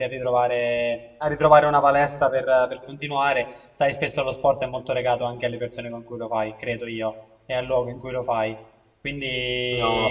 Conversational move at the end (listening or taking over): taking over